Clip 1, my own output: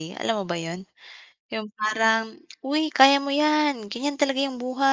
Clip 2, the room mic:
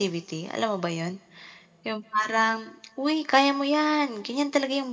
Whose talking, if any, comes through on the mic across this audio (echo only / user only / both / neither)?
echo only